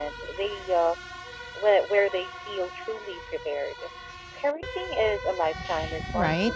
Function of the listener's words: taking over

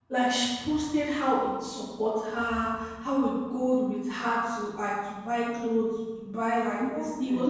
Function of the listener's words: listening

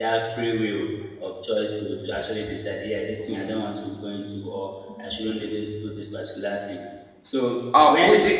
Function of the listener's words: taking over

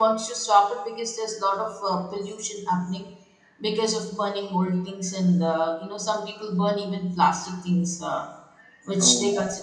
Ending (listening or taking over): listening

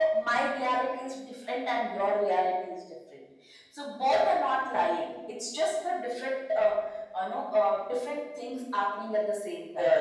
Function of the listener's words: taking over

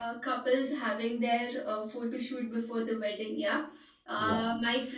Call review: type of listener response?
listening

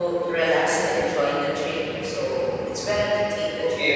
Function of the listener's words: taking over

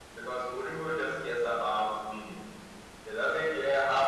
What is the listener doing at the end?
listening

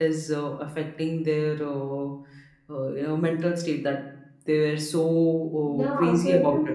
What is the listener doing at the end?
taking over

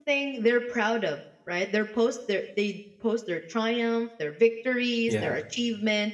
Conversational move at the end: listening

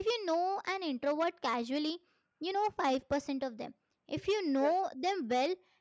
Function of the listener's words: listening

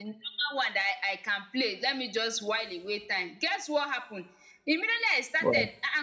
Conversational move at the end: listening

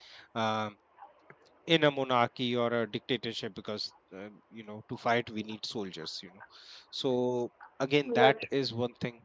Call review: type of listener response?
listening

